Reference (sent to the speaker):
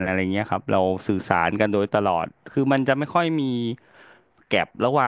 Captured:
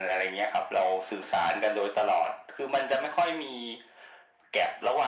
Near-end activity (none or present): none